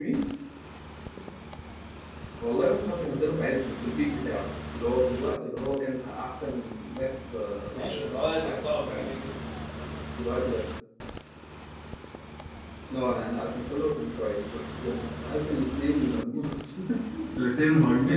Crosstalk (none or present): present